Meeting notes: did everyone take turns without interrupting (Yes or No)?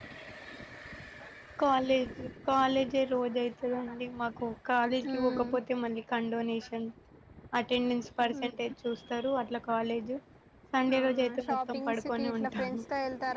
No